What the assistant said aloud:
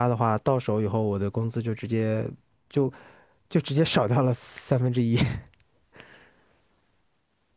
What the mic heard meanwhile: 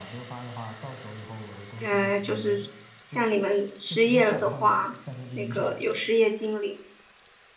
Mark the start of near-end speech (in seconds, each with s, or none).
1.8 s